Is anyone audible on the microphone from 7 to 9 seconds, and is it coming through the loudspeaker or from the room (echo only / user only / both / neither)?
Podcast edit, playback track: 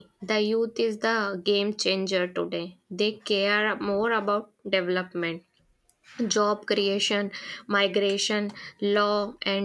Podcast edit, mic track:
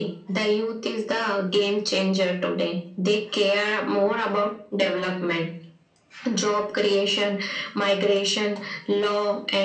echo only